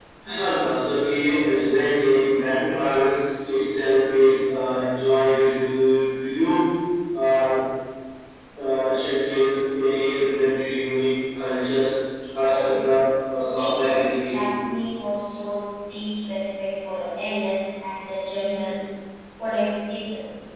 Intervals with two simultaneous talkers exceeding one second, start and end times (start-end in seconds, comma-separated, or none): 13.3-14.6